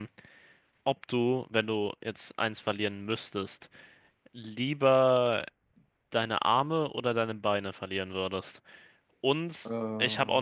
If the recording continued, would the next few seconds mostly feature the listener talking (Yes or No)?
No